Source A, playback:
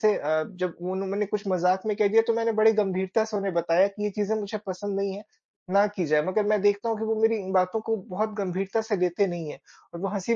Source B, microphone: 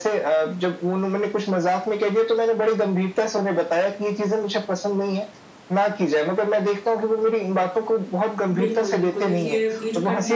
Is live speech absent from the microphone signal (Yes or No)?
No